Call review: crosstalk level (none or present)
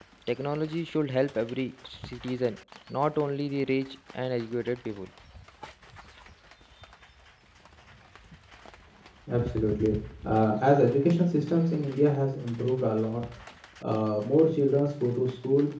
none